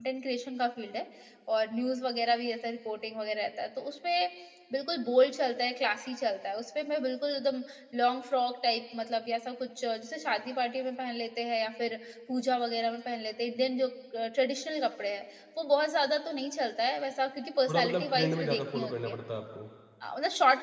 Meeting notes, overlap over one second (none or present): present